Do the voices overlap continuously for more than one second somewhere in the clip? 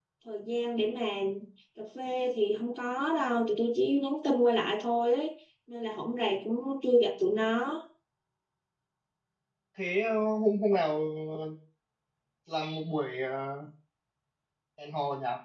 No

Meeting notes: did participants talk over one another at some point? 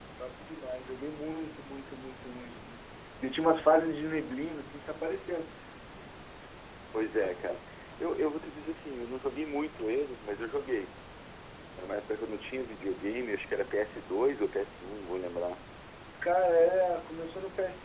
No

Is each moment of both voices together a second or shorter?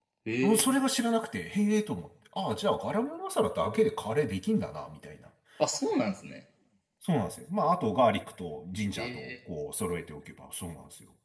Yes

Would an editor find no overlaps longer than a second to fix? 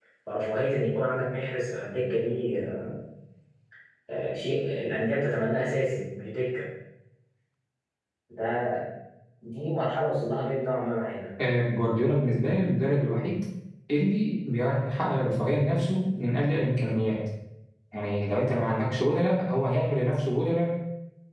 Yes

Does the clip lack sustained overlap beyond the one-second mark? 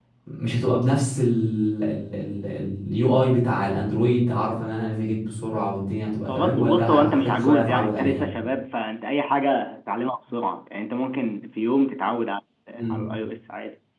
No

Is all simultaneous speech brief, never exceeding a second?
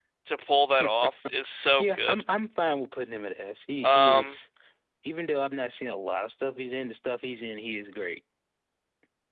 Yes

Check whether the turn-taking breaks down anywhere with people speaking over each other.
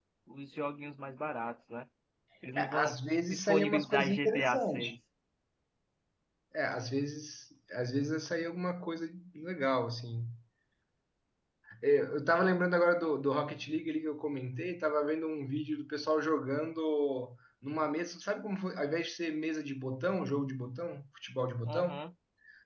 Yes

